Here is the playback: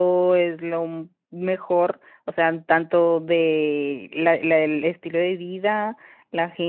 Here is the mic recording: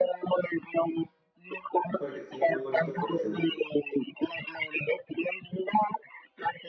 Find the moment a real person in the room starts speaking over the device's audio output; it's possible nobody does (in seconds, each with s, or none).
2.0 s